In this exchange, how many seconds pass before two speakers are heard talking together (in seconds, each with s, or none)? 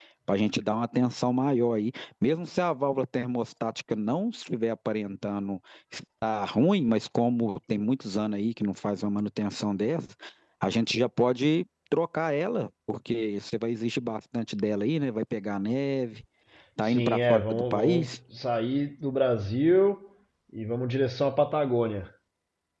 16.8 s